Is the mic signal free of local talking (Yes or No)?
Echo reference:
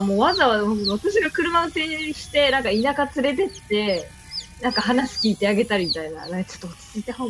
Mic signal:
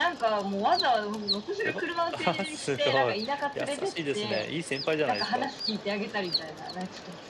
No